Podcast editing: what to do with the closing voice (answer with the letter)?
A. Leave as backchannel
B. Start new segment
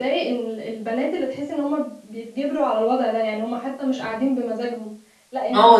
B